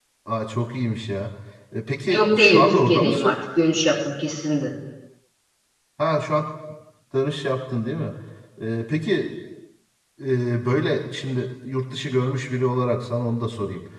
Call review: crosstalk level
present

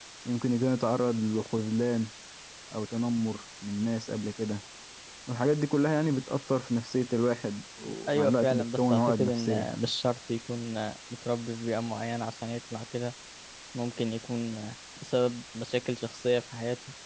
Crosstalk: present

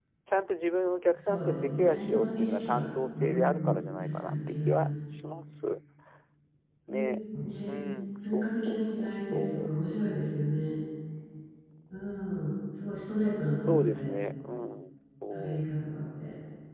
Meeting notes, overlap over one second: present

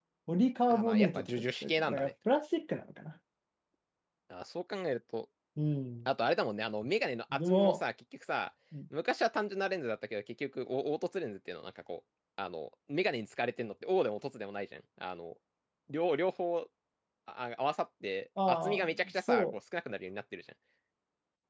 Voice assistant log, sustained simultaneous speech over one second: present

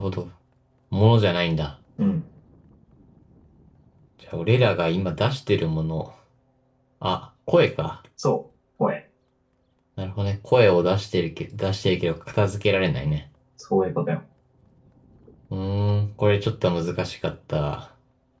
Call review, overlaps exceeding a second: none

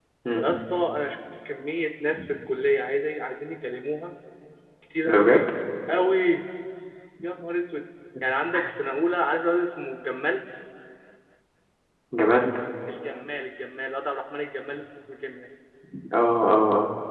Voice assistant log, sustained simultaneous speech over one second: none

